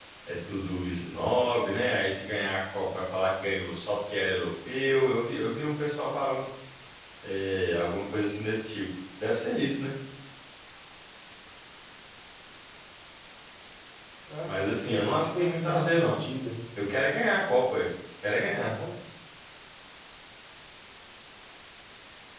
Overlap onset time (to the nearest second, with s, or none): 14 s